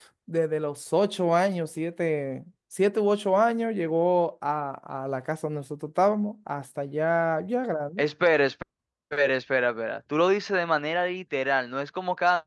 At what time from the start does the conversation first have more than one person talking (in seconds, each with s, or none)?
none